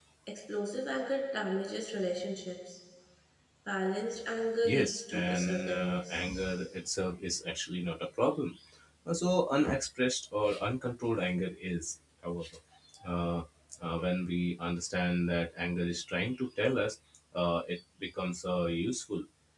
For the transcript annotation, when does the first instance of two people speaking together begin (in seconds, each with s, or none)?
4.6 s